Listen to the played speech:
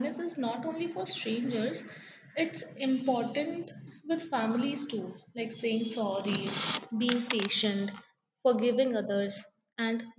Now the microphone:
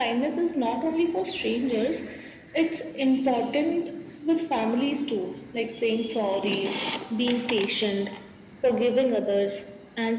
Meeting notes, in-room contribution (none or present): none